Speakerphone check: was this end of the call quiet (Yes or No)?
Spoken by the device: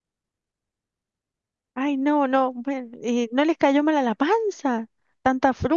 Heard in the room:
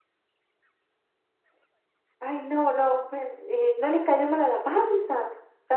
Yes